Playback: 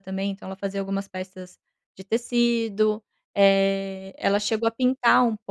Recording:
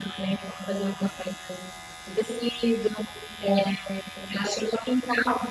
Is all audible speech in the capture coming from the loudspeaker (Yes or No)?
Yes